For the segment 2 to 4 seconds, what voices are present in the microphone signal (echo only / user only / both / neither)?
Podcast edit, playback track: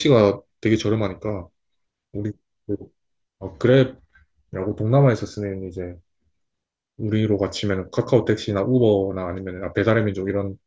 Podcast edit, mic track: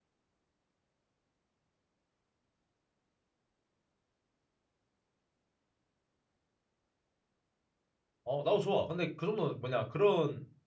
neither